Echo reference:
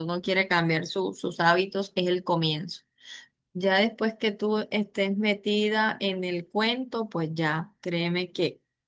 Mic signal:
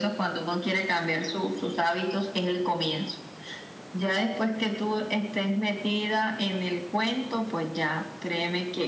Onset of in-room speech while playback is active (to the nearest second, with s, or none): none